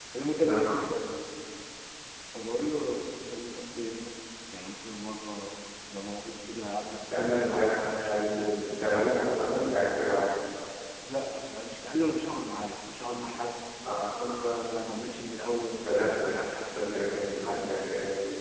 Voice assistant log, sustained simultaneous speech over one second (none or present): present